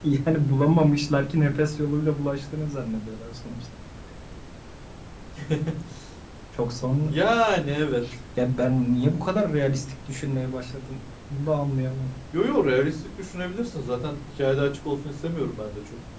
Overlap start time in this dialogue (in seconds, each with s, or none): none